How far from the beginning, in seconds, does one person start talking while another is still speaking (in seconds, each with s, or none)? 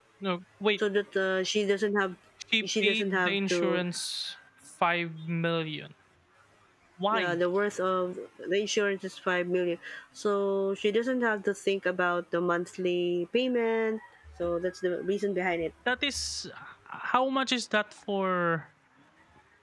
2.6 s